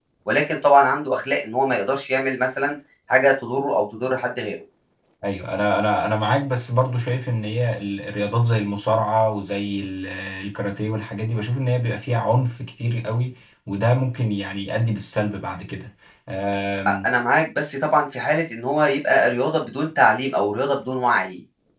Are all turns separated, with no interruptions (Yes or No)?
Yes